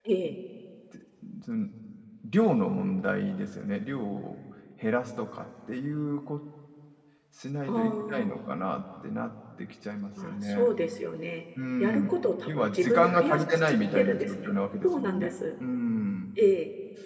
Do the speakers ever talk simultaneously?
Yes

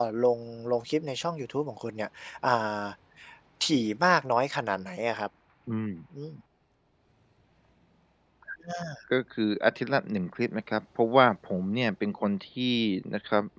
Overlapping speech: No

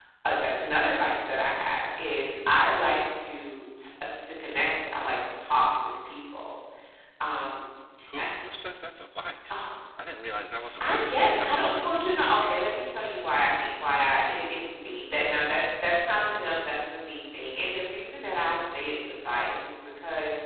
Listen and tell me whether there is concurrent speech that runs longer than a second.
Yes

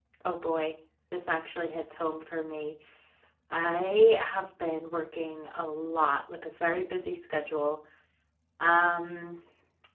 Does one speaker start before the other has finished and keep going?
No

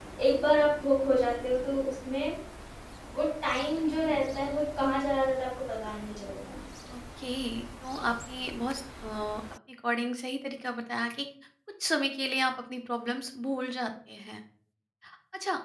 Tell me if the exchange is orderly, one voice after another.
Yes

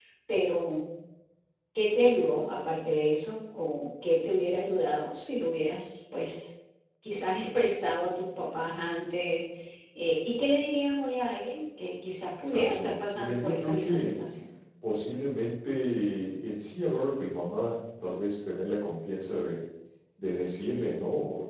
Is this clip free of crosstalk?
No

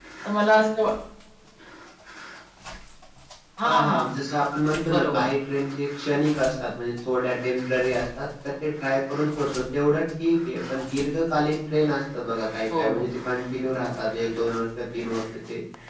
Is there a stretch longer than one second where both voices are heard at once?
No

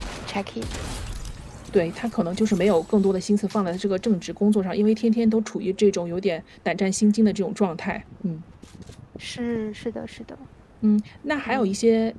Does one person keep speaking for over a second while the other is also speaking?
No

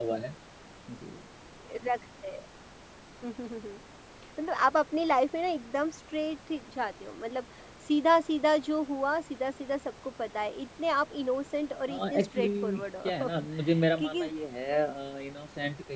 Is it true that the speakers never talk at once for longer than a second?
No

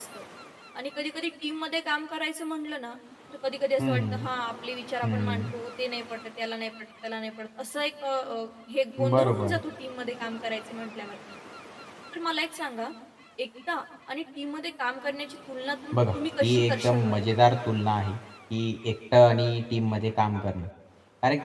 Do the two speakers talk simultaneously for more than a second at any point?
Yes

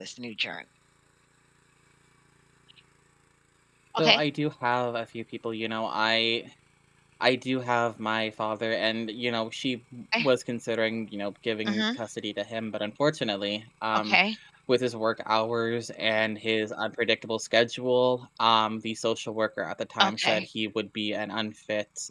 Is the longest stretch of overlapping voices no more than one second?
Yes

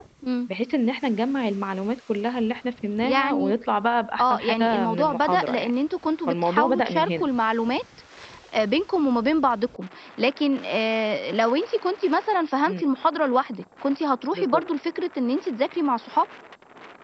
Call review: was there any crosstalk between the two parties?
Yes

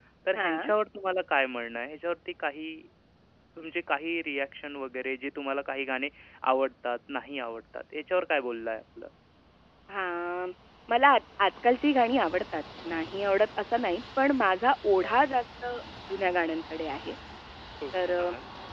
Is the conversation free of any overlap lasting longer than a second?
Yes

